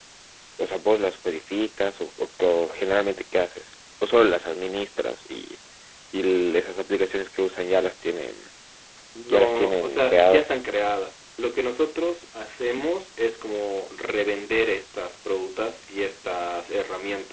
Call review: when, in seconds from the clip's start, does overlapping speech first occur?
9 s

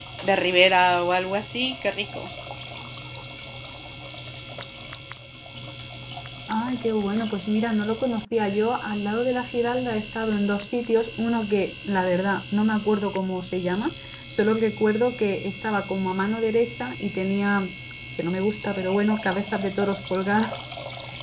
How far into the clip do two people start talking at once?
none

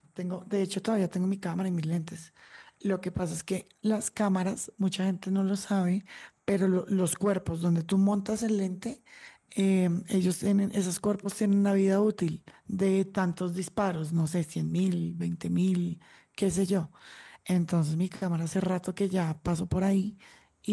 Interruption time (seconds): none

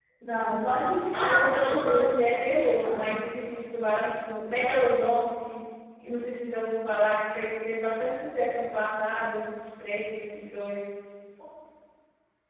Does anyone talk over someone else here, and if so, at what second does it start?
1 s

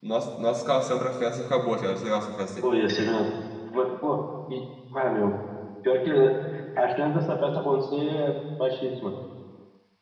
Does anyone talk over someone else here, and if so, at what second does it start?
none

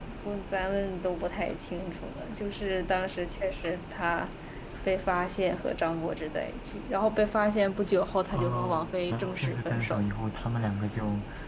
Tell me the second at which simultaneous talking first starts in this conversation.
8 s

